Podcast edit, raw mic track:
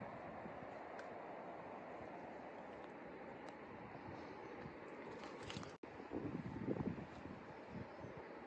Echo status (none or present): none